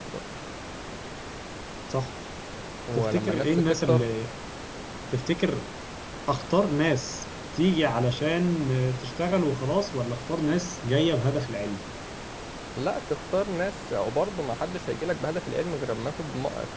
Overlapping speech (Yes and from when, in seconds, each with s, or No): Yes, from 2.9 s